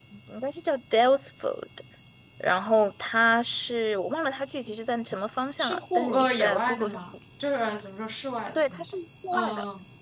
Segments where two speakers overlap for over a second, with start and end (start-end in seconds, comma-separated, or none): 5.6-7.0